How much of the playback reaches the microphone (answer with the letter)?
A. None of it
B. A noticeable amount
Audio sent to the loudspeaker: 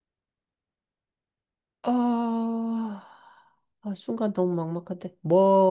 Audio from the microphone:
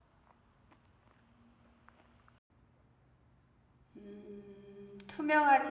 A